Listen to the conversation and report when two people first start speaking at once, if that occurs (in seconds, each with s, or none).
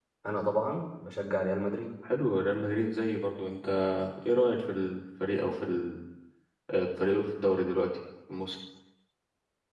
none